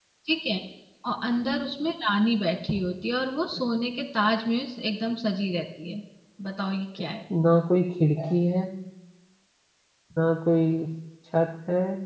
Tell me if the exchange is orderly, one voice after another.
Yes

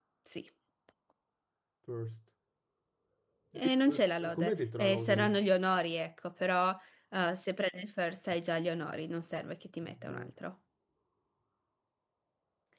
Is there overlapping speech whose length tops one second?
Yes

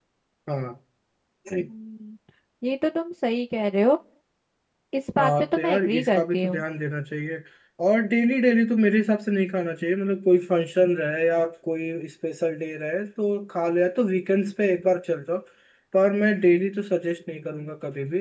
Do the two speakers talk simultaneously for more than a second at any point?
Yes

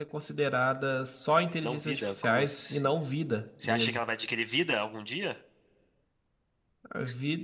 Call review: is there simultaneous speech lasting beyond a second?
Yes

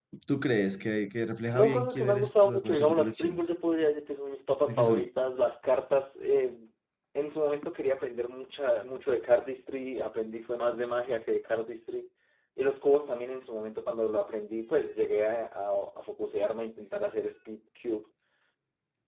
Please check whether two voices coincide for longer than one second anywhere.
Yes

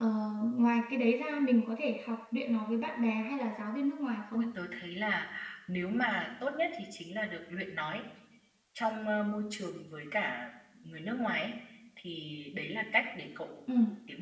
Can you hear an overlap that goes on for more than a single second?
No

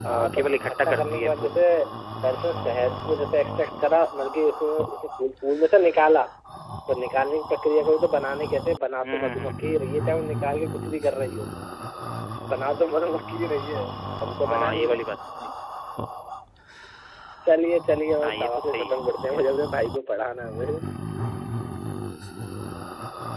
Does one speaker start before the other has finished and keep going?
Yes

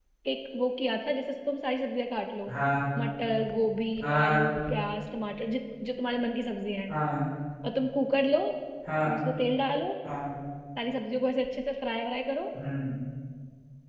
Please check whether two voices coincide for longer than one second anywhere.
No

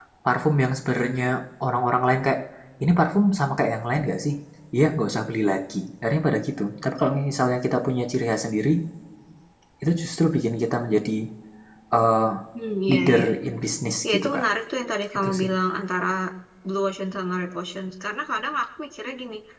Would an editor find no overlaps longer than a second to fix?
Yes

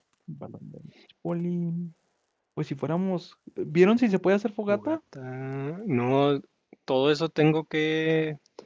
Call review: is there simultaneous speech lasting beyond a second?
No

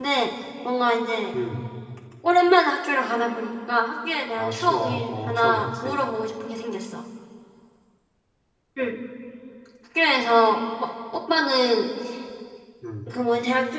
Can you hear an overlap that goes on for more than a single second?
Yes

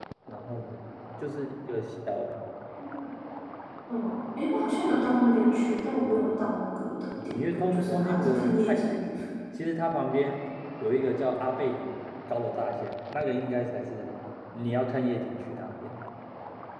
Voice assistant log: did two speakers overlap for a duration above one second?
Yes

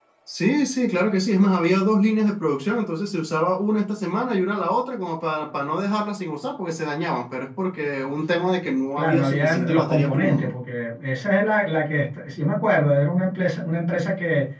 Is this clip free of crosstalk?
No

